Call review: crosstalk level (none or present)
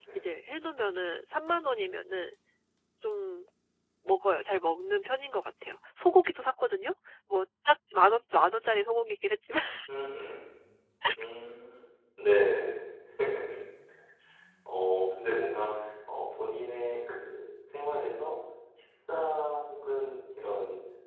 none